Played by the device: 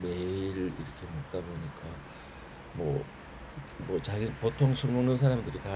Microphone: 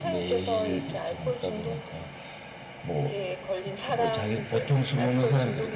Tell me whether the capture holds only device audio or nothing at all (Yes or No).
No